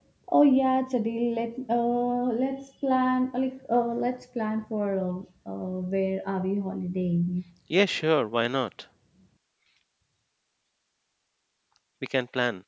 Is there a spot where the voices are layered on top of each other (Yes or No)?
No